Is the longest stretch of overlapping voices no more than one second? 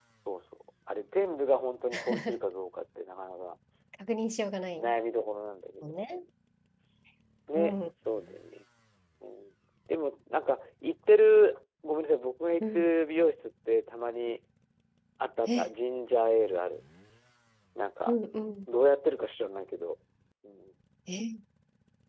Yes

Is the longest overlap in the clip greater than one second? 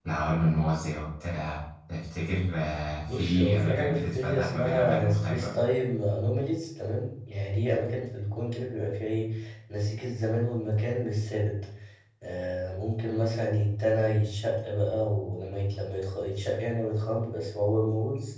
Yes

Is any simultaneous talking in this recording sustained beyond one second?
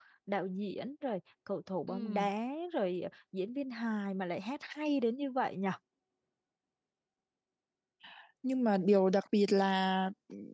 No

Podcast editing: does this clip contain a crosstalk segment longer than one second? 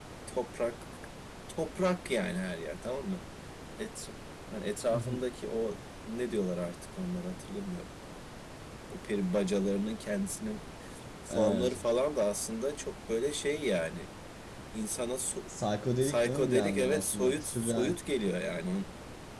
Yes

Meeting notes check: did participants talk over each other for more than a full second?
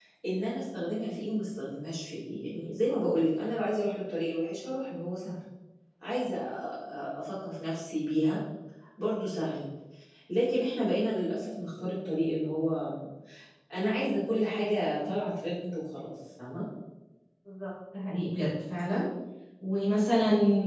No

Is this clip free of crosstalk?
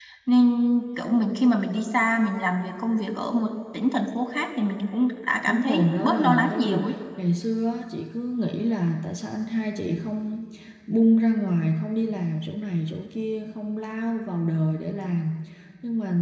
No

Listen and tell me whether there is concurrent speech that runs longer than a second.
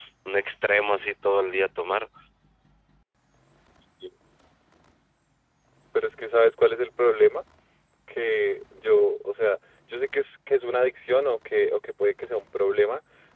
No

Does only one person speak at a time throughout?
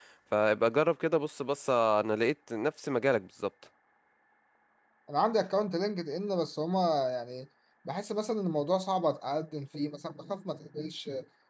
Yes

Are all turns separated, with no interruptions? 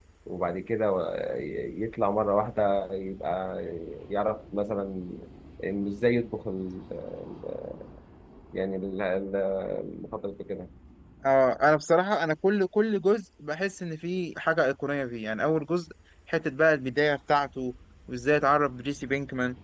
Yes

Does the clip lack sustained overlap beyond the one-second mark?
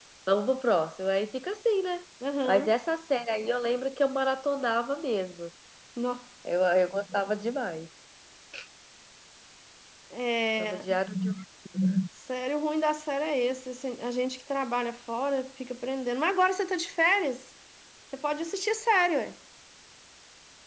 Yes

